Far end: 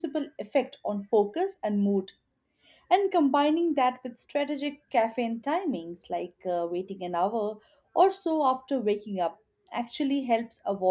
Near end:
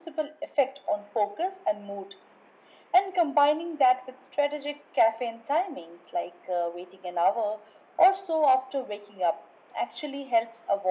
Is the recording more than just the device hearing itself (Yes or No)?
No